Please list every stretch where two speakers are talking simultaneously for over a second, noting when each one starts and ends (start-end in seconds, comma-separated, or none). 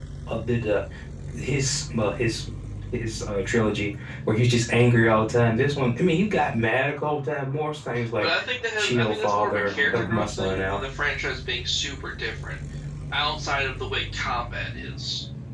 8.8-10.8